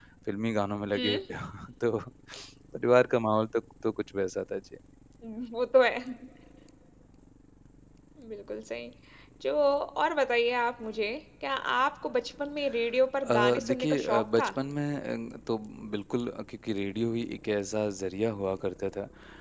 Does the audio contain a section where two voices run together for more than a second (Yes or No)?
Yes